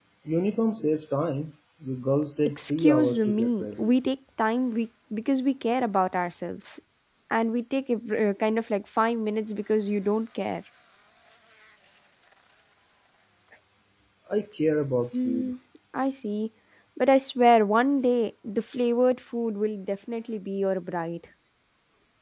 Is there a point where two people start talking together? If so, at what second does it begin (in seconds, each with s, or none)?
2.6 s